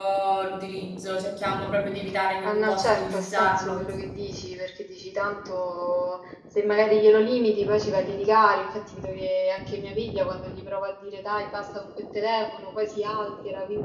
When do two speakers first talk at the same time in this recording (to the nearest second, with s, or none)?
2 s